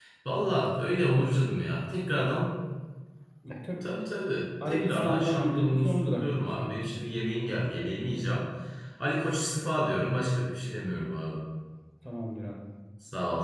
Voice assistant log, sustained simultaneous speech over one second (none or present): present